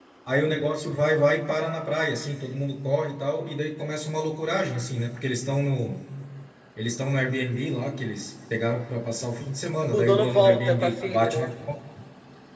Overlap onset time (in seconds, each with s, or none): 9.9 s